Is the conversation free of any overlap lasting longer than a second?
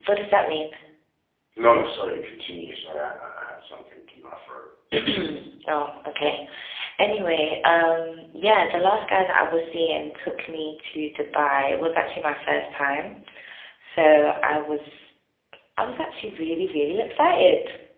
Yes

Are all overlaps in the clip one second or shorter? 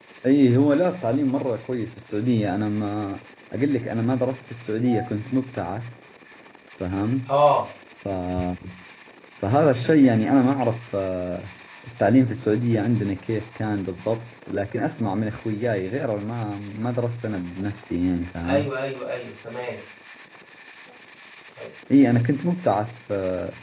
Yes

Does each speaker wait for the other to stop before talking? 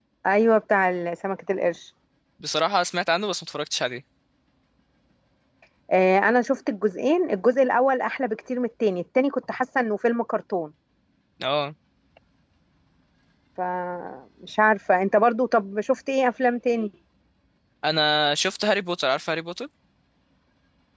Yes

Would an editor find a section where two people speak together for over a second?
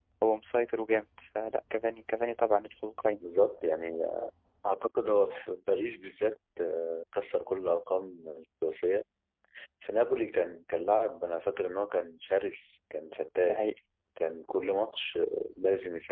No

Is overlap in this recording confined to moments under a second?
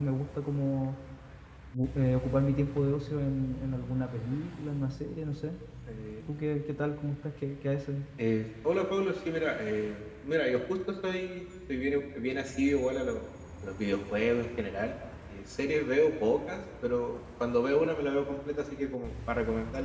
Yes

